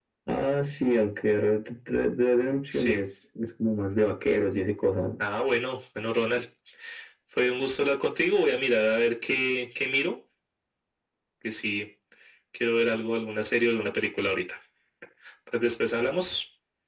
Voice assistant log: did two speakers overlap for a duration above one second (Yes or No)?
No